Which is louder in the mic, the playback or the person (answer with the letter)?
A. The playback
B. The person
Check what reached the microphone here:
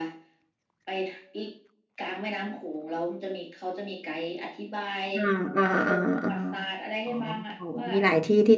B